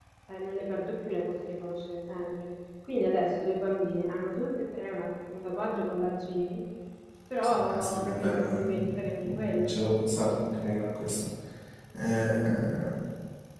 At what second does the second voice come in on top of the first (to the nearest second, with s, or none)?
8 s